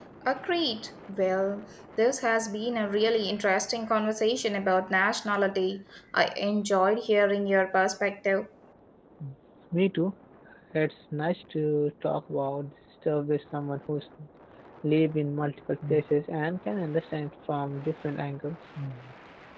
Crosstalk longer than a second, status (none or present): none